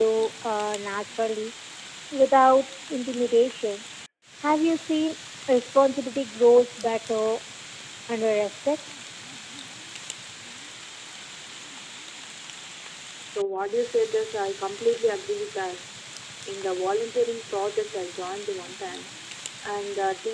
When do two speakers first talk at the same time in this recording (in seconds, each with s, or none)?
none